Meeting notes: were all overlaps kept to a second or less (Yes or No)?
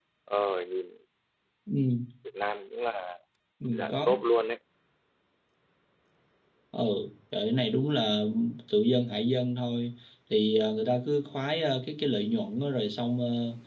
Yes